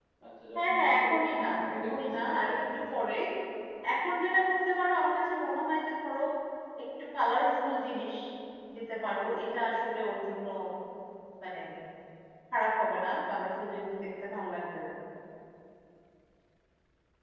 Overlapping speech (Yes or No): Yes